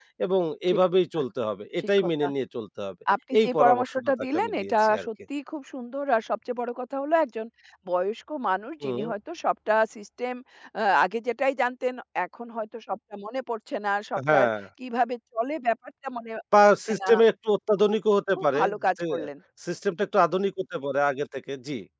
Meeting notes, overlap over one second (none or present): present